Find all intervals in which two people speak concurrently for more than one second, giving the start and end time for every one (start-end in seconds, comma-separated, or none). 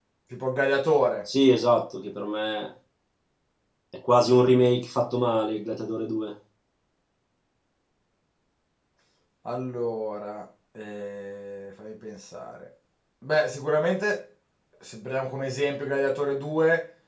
none